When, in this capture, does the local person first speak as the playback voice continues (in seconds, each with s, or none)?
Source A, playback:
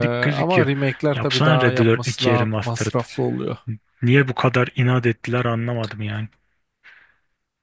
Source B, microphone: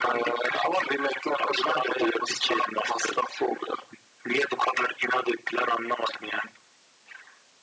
none